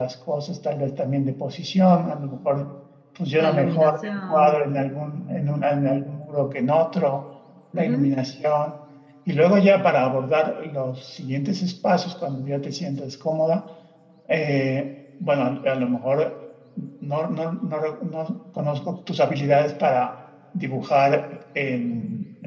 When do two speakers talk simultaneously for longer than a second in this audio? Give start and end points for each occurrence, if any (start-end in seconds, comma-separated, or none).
3.4-4.7